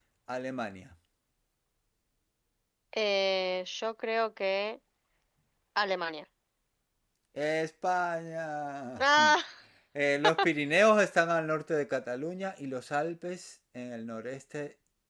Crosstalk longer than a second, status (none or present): none